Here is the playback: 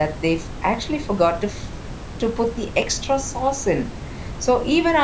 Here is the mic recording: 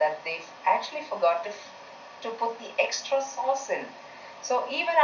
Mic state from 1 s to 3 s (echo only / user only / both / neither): echo only